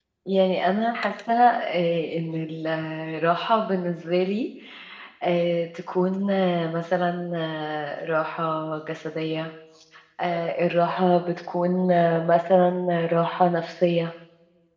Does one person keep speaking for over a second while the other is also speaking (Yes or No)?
No